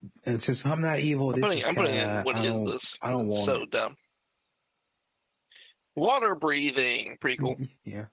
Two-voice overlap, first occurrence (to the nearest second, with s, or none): 1 s